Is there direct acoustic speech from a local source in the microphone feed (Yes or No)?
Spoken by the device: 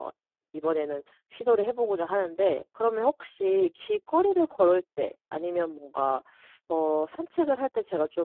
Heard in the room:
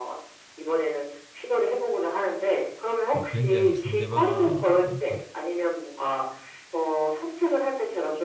Yes